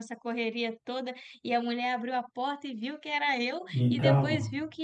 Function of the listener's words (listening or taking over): listening